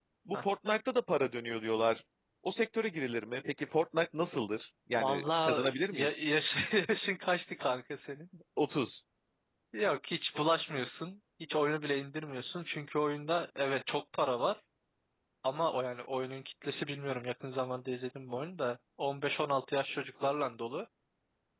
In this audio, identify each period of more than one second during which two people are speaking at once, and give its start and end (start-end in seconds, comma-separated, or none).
5.0-6.2